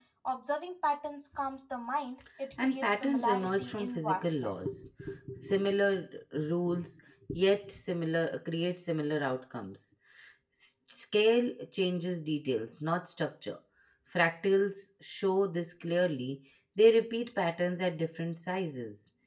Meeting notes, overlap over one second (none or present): present